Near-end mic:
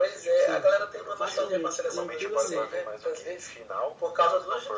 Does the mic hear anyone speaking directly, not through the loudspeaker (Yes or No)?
Yes